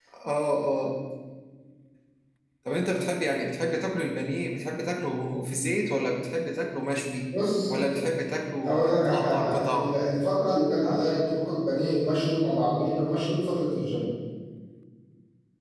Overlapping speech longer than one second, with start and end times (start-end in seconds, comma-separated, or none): 8.7-9.9